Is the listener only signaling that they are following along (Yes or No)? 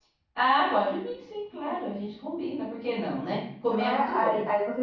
No